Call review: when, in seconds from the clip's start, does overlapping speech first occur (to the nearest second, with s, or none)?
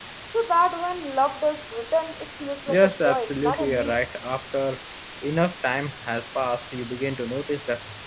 3 s